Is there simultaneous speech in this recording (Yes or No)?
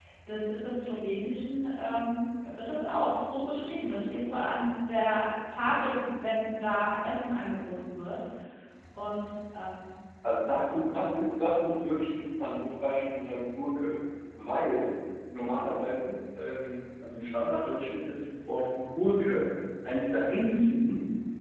No